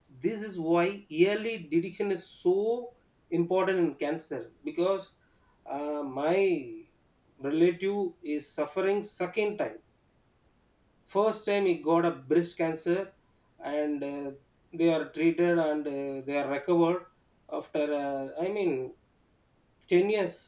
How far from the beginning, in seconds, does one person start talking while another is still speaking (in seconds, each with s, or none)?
none